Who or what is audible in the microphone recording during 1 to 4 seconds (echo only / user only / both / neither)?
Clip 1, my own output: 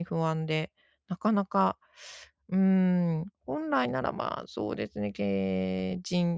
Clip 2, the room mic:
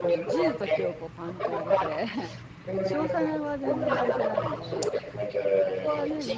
both